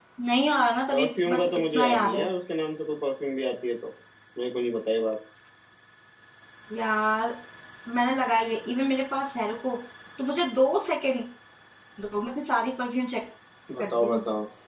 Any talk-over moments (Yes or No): Yes